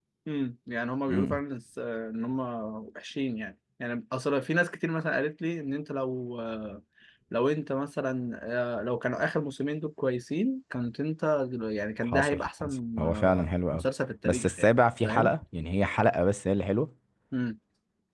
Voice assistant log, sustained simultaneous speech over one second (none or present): present